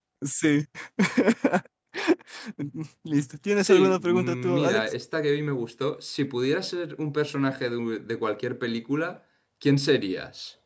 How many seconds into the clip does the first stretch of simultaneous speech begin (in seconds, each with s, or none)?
3.6 s